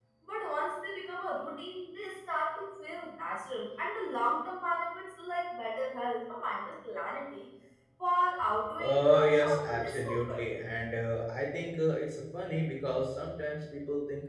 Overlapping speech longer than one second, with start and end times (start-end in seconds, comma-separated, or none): 8.8-10.4